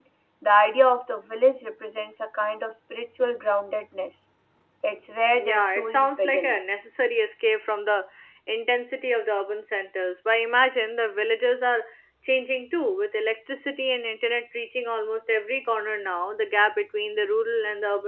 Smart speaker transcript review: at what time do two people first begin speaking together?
5 s

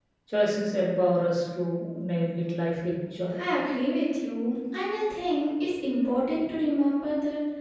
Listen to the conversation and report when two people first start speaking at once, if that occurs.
none

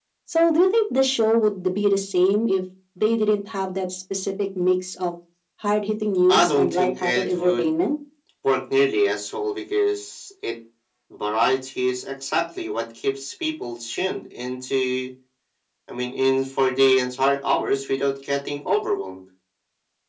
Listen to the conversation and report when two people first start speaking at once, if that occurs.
6 s

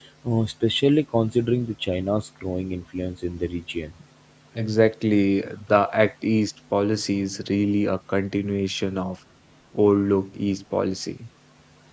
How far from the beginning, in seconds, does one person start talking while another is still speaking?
none

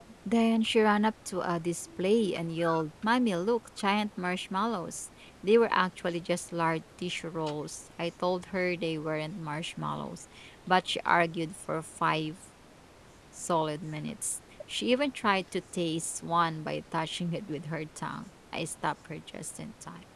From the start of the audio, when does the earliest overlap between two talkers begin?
none

